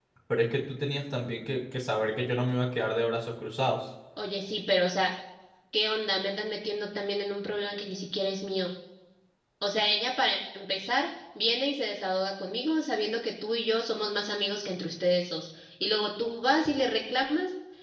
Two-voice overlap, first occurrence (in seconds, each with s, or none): none